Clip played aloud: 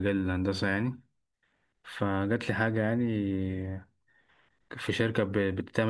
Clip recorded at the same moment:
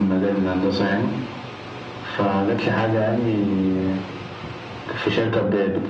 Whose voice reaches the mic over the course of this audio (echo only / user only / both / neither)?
echo only